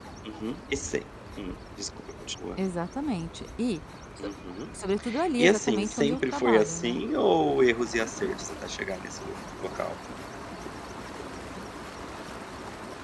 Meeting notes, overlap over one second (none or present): present